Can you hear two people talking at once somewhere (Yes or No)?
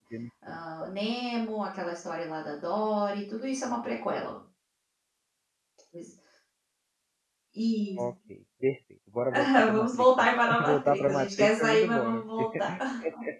Yes